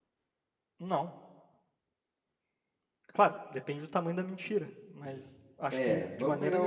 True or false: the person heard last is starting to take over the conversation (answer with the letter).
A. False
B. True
B